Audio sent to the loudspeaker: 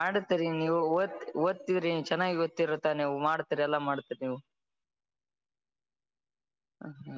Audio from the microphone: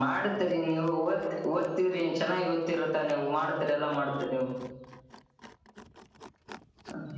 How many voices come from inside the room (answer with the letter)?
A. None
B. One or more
A